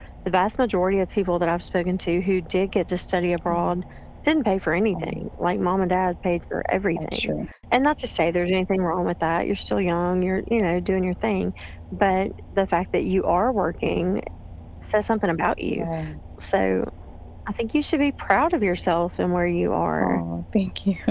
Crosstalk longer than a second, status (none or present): none